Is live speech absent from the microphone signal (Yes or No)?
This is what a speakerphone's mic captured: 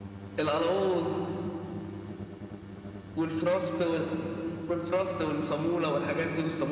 Yes